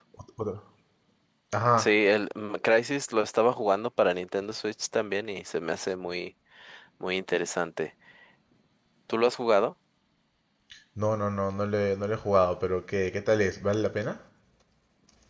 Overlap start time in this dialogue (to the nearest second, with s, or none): none